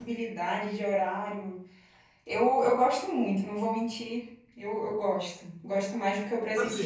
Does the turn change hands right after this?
Yes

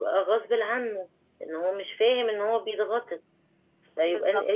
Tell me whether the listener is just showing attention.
Yes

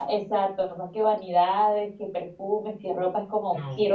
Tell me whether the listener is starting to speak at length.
No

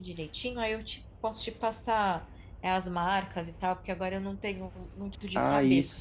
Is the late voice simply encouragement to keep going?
No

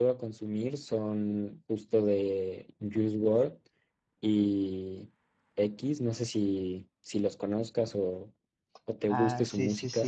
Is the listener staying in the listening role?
No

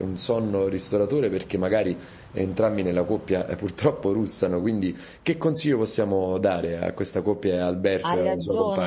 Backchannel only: No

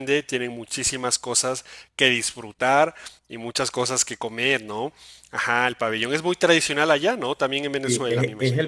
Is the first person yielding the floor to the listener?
Yes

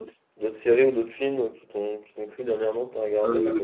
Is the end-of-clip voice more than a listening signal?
Yes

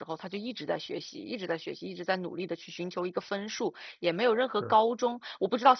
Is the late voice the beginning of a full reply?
No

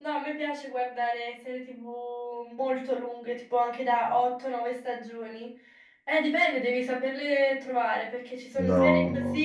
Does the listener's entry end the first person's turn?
No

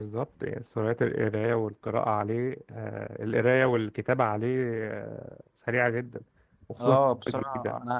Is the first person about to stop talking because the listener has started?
Yes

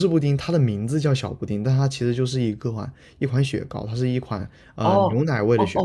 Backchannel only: No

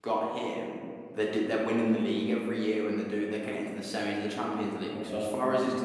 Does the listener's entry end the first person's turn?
No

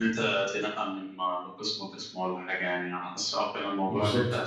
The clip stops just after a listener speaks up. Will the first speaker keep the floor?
Yes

